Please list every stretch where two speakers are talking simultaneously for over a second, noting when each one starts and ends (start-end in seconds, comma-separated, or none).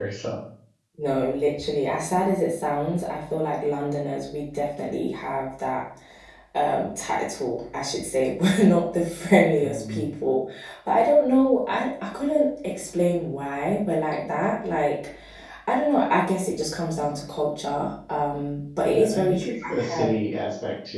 18.8-20.1